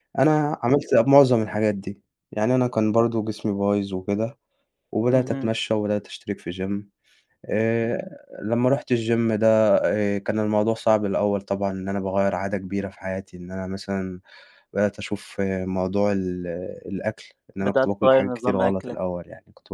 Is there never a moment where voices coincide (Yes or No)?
No